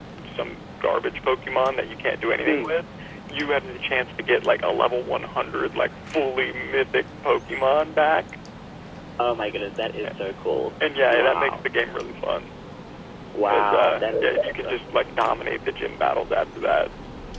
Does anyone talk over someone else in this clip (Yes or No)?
Yes